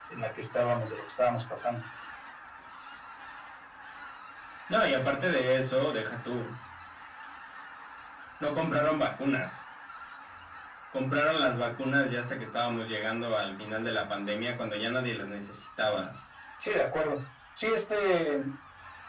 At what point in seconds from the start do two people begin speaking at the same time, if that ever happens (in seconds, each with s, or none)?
none